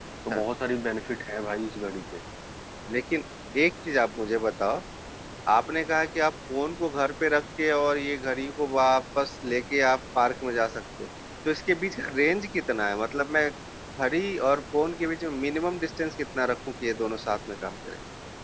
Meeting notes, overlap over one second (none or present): none